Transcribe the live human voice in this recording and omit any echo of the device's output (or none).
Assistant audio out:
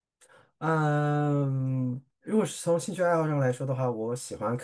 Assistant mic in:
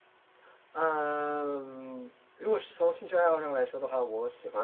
none